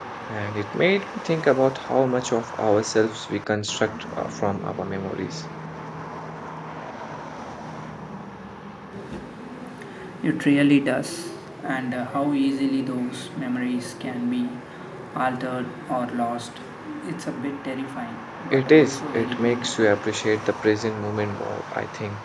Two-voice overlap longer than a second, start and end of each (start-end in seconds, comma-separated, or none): 18.5-19.9